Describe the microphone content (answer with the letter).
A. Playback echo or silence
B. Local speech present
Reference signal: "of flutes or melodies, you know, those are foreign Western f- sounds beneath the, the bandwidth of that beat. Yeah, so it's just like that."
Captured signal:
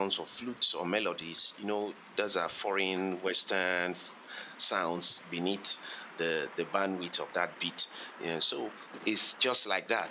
A